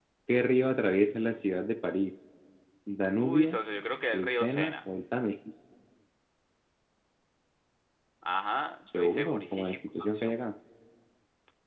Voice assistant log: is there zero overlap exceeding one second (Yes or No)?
No